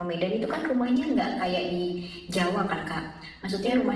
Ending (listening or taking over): listening